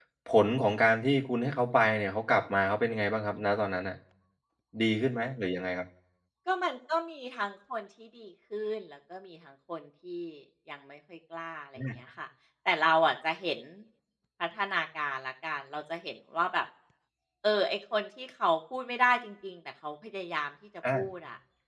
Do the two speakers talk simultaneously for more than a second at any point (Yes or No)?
No